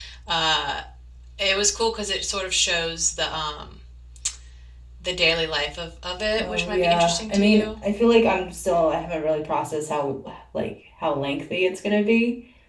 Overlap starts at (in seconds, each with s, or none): 6.3 s